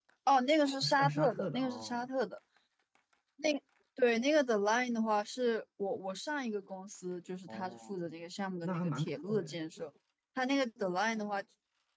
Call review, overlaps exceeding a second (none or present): present